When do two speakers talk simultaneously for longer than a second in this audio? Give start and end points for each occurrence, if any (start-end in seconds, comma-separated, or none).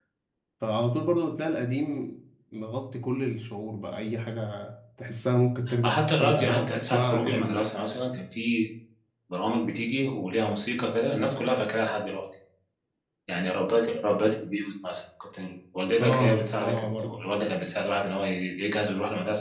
5.8-7.7, 16.0-17.2